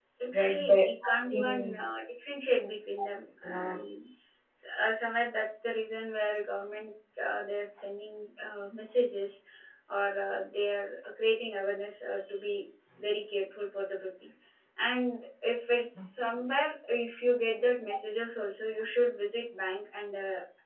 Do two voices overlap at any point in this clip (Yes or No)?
Yes